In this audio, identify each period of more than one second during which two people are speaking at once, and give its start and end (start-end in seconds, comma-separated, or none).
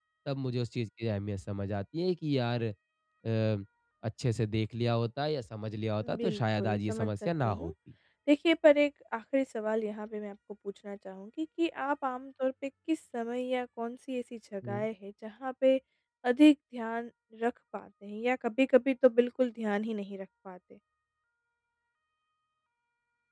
6.2-7.7